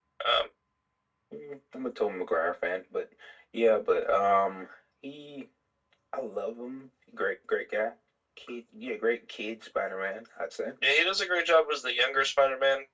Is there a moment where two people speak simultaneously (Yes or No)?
No